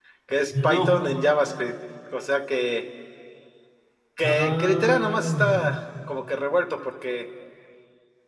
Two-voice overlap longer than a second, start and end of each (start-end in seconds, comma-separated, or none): 4.2-5.6